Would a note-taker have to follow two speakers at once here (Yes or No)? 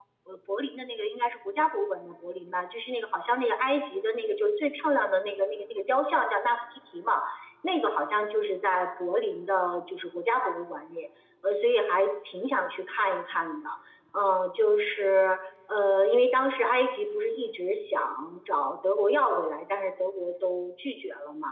No